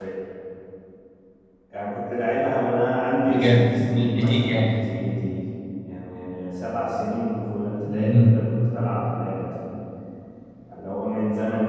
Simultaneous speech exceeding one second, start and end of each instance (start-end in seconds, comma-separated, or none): 3.2-4.8